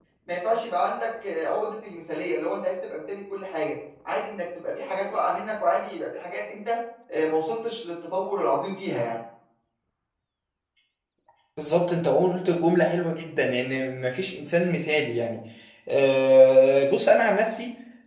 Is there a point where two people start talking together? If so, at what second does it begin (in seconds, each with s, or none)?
none